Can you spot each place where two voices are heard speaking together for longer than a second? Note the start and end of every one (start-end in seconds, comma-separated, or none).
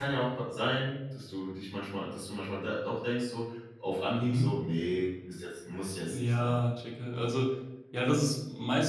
none